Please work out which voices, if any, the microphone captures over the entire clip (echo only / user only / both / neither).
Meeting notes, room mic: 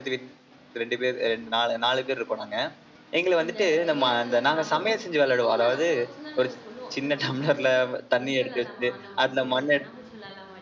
both